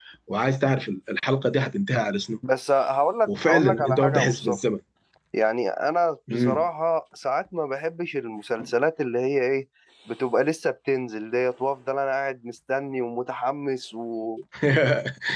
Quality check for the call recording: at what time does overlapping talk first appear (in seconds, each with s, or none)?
3.3 s